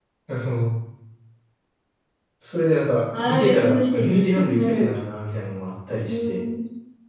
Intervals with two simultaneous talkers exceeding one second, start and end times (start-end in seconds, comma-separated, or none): 3.2-4.9